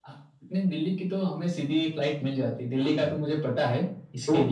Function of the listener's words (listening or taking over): taking over